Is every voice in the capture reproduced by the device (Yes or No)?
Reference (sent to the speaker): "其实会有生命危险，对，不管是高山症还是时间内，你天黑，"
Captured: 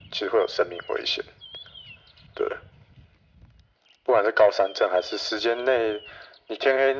Yes